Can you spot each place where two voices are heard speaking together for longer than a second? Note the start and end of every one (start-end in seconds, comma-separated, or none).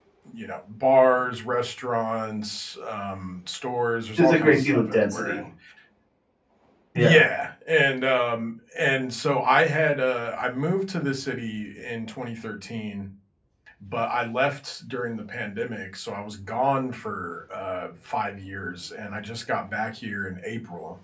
4.2-5.4